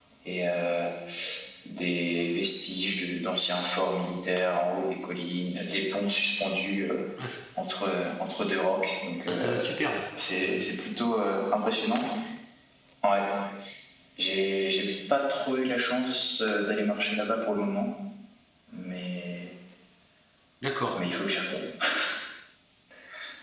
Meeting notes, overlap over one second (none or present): none